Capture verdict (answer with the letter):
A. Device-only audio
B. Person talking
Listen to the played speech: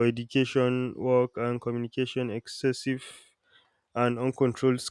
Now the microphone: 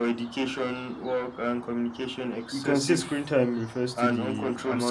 B